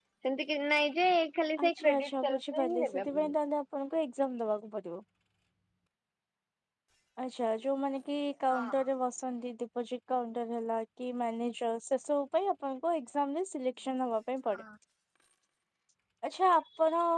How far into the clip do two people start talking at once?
1.6 s

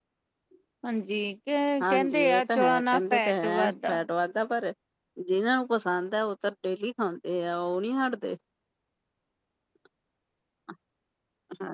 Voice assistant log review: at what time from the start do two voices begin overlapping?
1.8 s

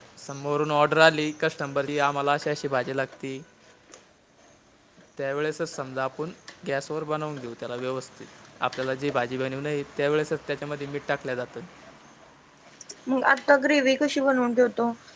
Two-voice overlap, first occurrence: none

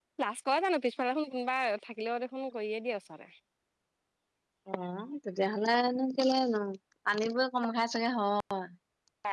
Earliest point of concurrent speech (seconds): none

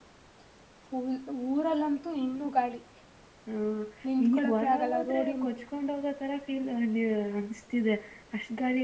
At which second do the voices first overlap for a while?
4.2 s

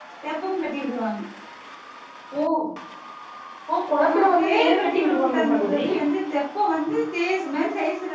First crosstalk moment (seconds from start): 4.0 s

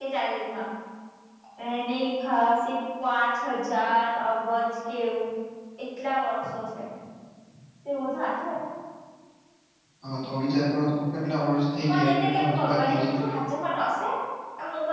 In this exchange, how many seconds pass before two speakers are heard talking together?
11.8 s

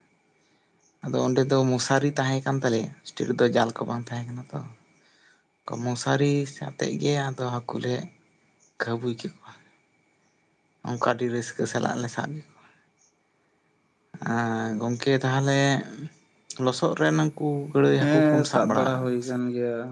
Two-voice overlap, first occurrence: 18.0 s

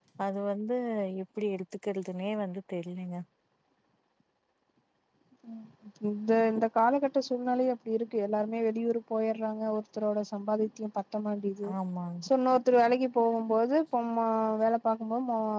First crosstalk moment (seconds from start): none

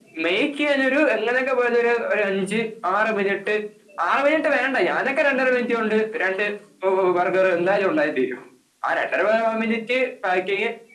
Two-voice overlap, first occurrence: none

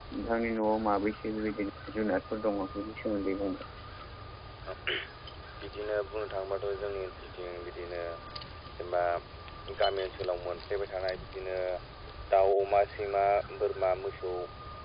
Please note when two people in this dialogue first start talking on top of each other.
none

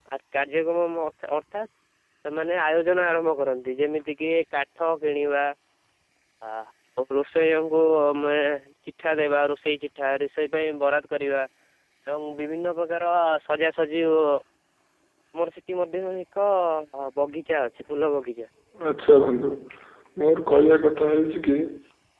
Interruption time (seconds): none

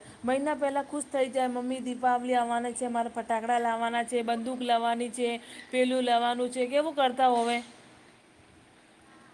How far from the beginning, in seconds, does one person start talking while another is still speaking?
none

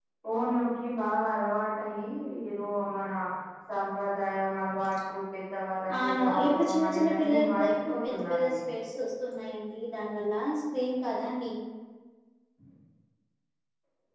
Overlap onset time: 5.9 s

